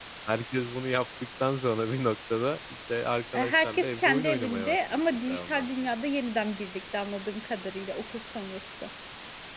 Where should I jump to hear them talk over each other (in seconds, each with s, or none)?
3.3 s